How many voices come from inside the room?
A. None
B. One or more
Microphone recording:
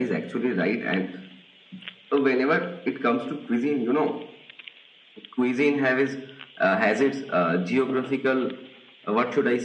A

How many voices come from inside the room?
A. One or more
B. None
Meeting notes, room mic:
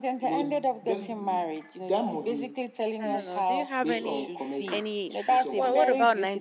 A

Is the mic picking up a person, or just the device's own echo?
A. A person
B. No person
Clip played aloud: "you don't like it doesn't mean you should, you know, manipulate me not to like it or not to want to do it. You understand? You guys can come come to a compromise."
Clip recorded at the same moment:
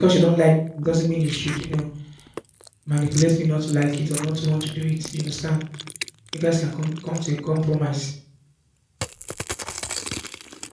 B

